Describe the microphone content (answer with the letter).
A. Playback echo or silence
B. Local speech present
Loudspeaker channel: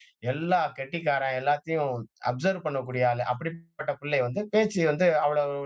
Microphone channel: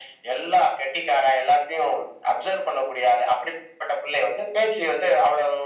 A